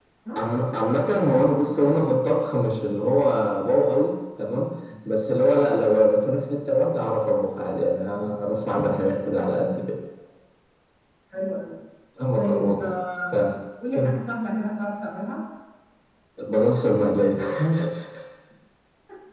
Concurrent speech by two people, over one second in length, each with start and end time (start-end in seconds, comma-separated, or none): none